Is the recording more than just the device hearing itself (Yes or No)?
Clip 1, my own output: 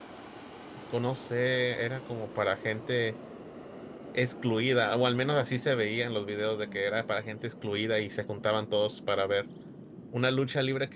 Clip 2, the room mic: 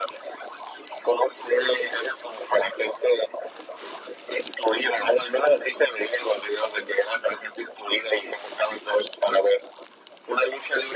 No